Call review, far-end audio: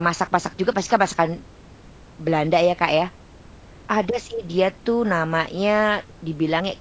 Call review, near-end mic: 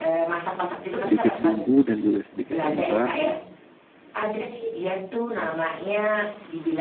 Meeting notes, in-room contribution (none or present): present